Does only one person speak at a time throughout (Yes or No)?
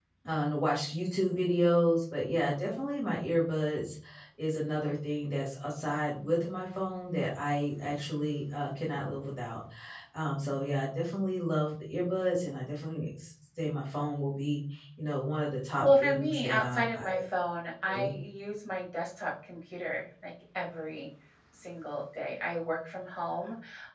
No